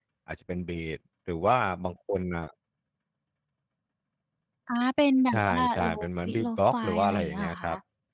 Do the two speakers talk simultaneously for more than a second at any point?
Yes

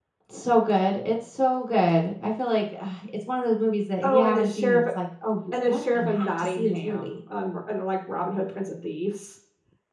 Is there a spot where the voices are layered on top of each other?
Yes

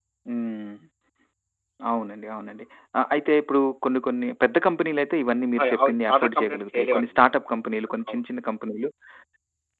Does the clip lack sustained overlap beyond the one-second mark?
No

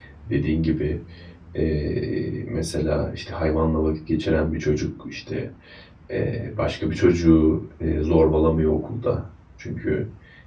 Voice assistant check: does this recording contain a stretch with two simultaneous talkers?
No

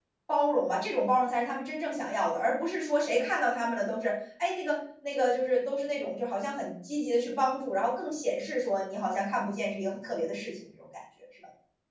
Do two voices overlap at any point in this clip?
No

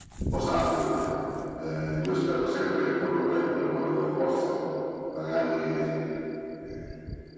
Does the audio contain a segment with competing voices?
No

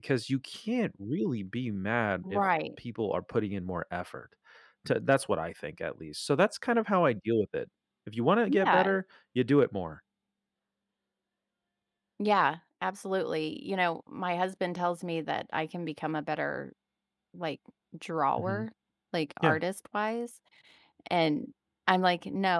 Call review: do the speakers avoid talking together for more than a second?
Yes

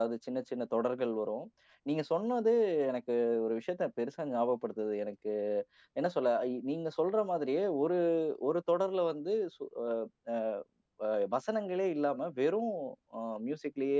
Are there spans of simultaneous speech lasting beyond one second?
No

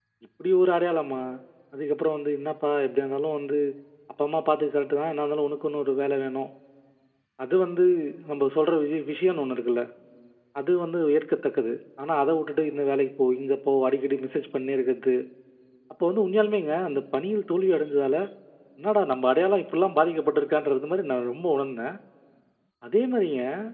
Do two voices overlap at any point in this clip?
No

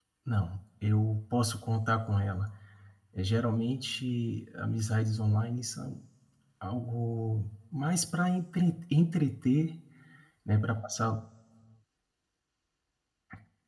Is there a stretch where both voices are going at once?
No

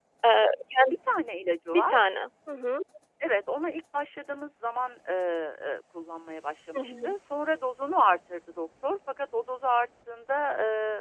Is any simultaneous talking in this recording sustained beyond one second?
No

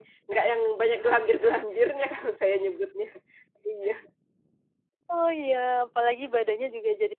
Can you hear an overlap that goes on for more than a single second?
No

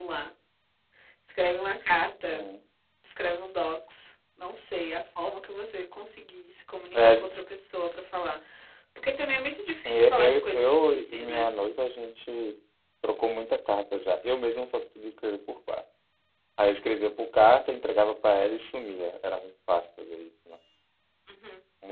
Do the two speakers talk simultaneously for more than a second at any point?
Yes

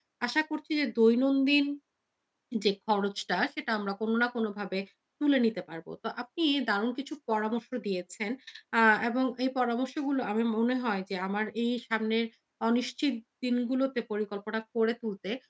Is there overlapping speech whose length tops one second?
No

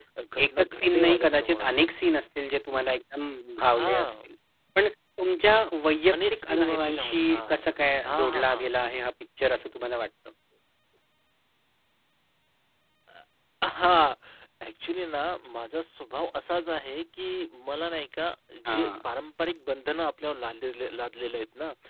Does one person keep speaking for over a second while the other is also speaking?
Yes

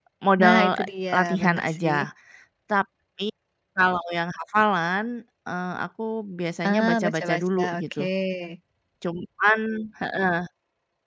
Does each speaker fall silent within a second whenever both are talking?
No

